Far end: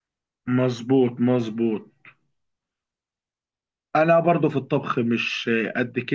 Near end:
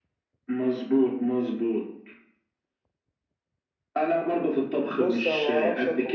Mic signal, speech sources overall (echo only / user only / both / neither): both